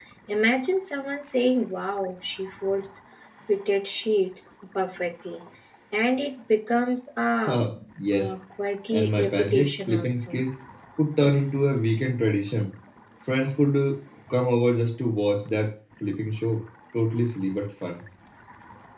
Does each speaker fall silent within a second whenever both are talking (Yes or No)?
No